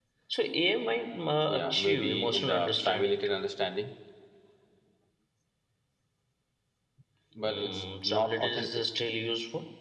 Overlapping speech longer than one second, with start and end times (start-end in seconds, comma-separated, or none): 1.5-3.4, 7.5-8.8